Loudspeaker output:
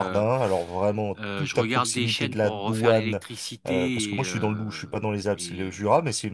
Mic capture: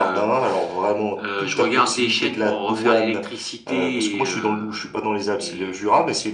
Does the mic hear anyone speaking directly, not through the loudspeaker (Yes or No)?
No